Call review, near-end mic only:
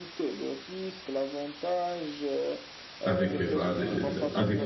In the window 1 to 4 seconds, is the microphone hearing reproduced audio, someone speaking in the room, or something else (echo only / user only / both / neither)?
both